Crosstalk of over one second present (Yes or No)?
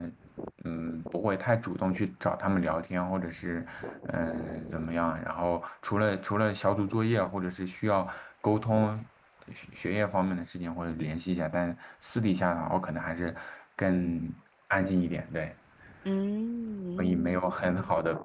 No